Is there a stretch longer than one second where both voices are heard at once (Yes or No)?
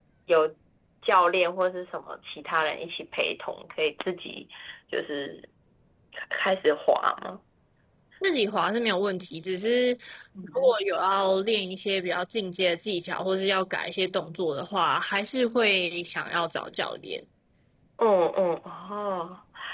No